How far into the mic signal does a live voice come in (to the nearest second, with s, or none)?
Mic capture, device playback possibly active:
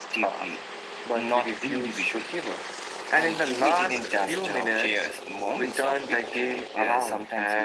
none